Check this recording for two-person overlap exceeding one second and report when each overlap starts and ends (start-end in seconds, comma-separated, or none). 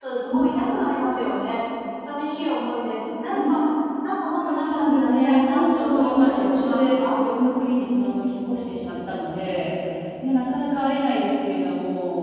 4.6-7.2